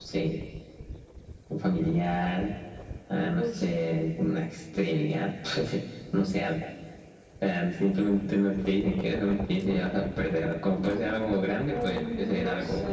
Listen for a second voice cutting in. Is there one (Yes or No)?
Yes